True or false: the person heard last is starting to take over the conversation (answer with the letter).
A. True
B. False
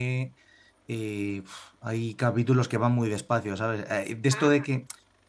B